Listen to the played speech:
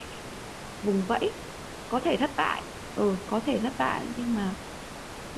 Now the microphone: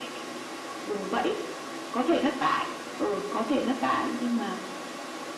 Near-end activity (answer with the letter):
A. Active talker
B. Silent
B